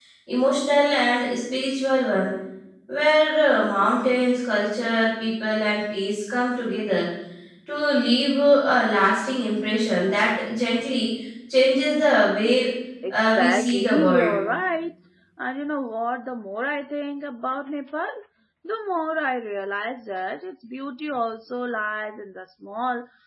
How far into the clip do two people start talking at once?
13.1 s

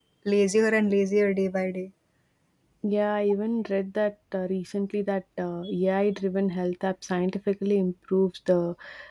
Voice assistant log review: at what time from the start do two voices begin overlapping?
none

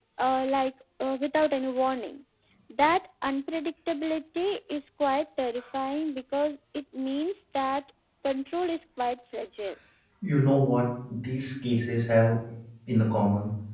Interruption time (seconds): none

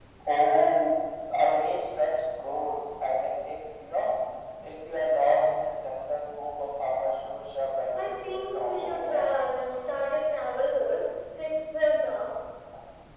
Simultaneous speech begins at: 7.9 s

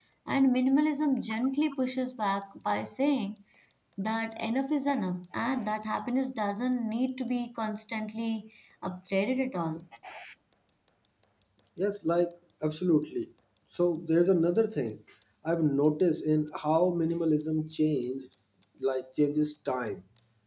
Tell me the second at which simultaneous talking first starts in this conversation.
none

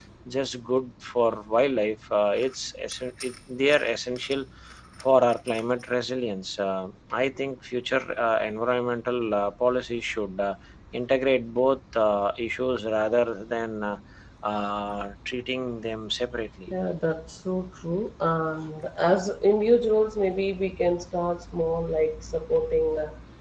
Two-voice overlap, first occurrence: none

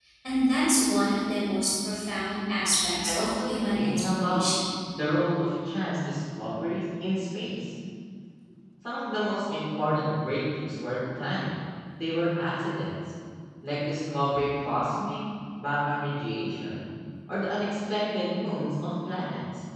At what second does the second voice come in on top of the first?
3.0 s

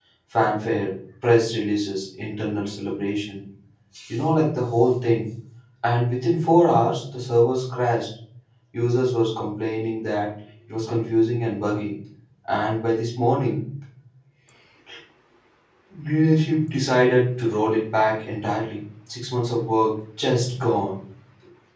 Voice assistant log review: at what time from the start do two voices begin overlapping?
none

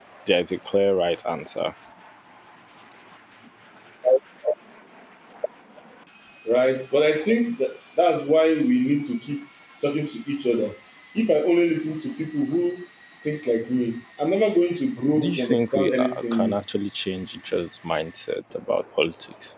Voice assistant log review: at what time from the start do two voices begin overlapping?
15.2 s

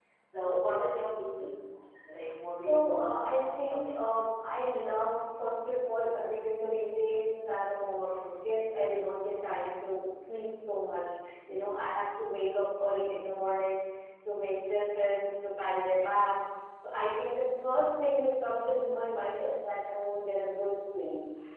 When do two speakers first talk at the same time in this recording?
2.6 s

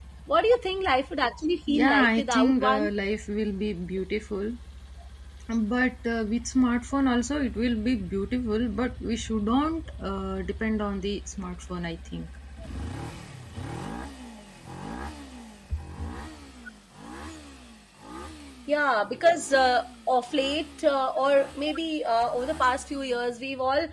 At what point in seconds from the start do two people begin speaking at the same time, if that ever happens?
1.7 s

